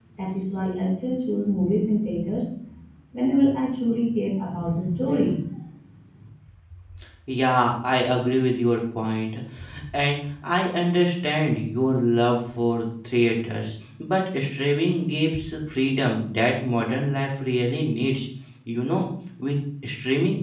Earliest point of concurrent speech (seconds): none

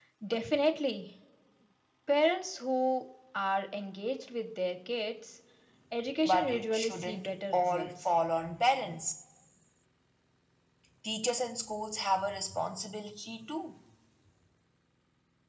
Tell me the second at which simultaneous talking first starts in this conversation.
6.2 s

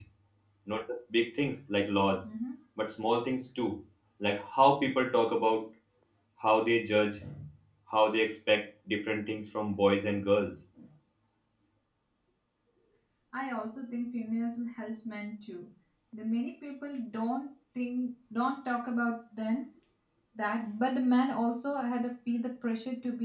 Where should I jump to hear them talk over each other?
none

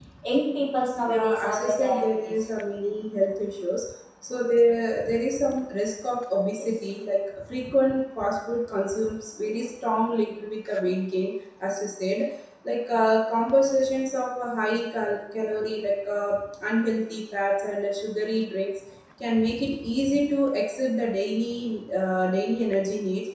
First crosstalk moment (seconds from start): 1.1 s

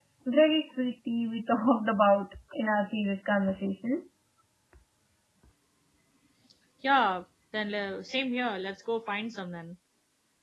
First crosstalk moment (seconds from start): none

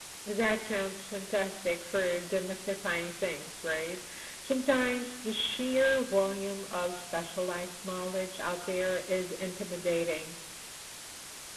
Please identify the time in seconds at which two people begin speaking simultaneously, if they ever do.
none

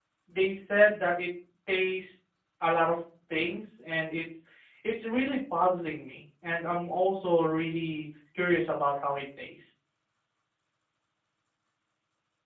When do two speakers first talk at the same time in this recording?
none

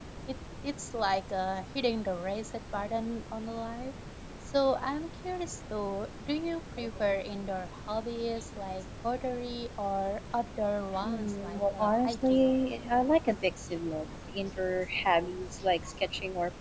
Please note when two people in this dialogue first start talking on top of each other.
10.9 s

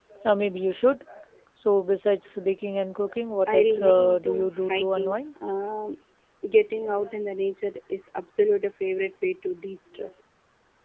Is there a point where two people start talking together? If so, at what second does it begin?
3.5 s

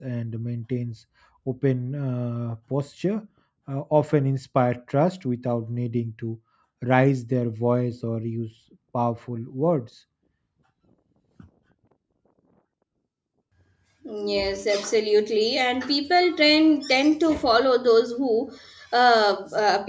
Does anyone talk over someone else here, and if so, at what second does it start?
none

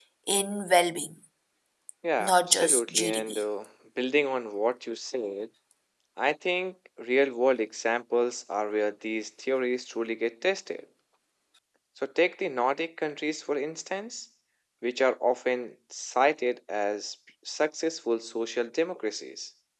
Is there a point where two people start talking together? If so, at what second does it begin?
2.2 s

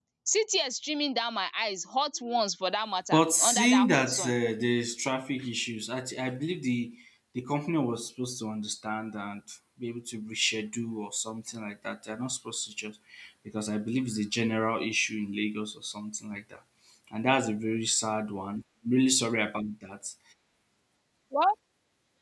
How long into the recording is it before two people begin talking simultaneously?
3.1 s

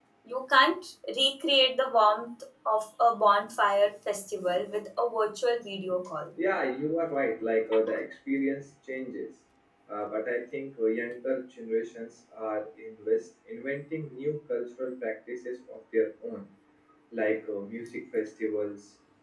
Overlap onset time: none

